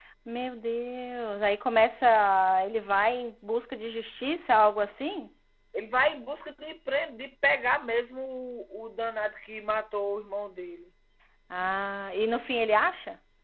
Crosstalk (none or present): none